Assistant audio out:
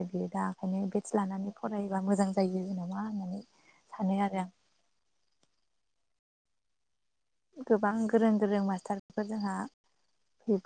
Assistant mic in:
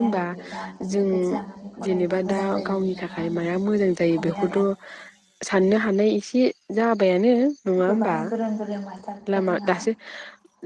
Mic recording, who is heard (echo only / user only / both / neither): both